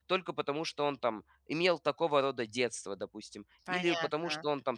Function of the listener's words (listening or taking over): listening